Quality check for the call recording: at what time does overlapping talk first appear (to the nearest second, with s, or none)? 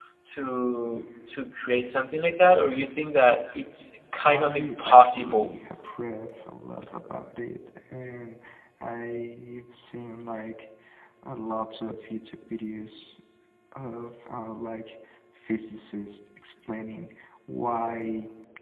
4 s